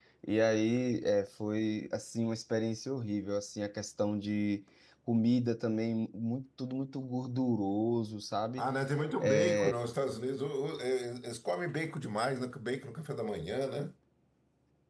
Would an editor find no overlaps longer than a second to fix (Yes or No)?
Yes